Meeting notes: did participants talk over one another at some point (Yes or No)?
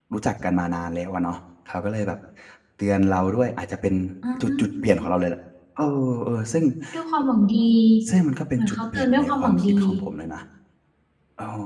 Yes